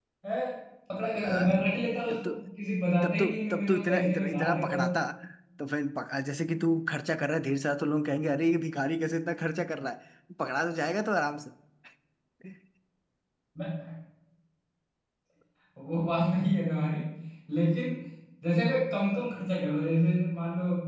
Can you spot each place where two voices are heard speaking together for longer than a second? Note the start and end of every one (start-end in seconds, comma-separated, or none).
3.0-4.8